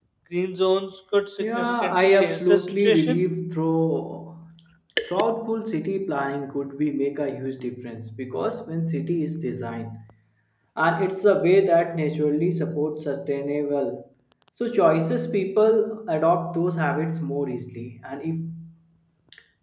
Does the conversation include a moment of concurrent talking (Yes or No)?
Yes